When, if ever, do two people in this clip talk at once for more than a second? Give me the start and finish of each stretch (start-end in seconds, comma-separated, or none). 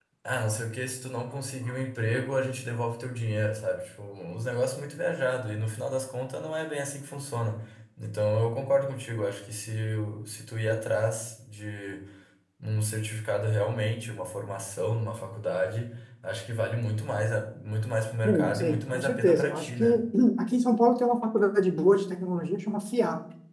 18.2-19.8